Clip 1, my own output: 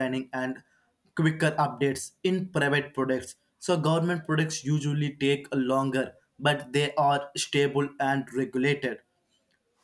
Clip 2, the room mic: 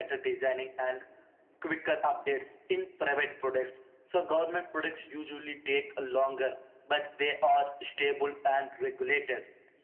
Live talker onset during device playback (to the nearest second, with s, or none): none